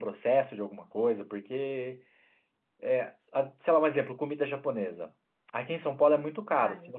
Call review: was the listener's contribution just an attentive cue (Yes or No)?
Yes